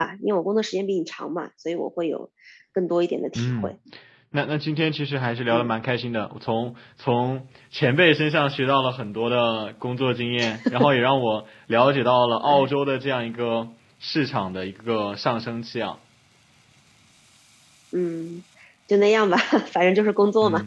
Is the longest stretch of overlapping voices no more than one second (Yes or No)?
Yes